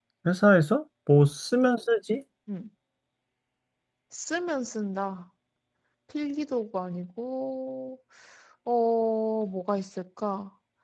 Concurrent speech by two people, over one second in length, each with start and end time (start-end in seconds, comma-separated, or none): none